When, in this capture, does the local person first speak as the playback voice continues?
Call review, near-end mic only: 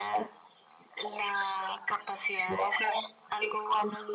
none

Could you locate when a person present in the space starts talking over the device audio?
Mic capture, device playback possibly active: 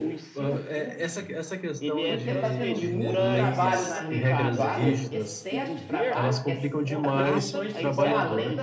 2 s

